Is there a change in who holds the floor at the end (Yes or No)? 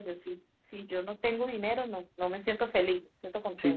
Yes